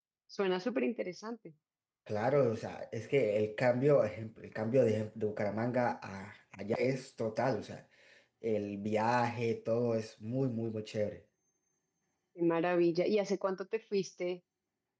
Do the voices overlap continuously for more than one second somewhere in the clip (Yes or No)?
No